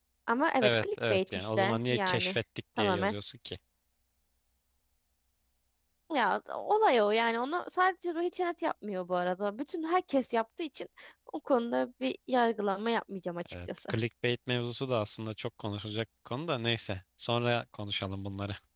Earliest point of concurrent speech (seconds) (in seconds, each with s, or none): 0.6 s